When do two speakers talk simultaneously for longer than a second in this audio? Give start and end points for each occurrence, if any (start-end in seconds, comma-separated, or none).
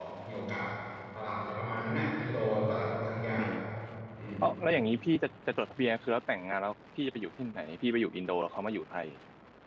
none